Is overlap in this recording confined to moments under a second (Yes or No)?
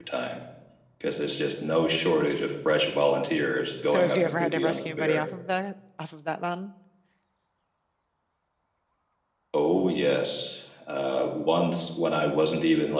No